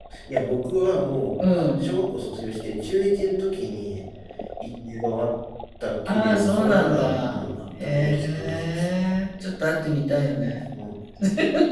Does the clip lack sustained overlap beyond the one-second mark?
No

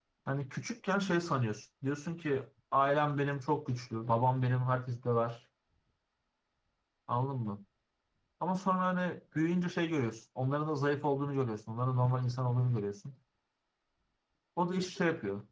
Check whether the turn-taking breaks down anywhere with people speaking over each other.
No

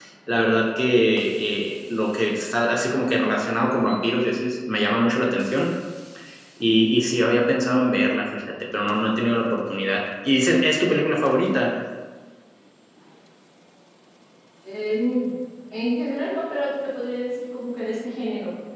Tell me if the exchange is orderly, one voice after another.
Yes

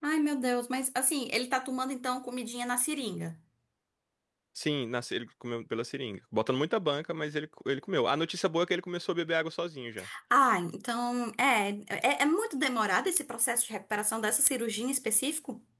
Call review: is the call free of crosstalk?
Yes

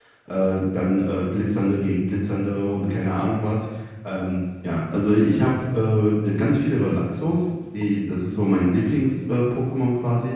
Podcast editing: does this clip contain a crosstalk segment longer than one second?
No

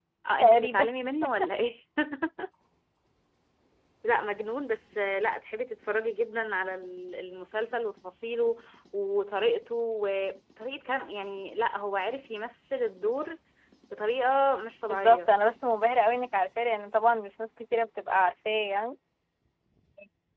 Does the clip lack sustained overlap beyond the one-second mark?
Yes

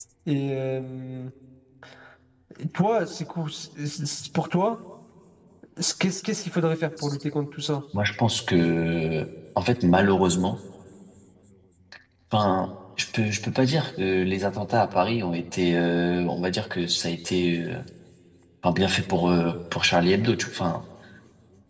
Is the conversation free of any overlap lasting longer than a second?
Yes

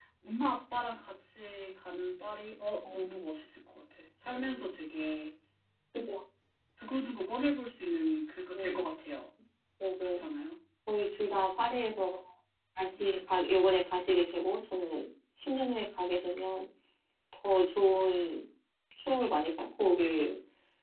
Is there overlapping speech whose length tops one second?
No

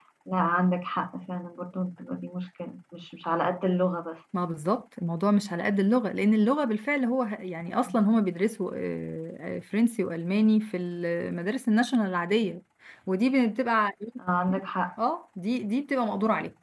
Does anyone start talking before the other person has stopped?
No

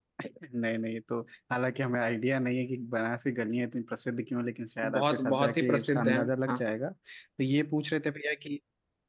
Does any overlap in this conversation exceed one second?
Yes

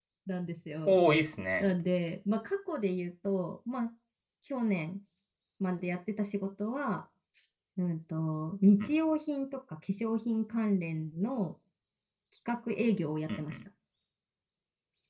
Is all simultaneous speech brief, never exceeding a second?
Yes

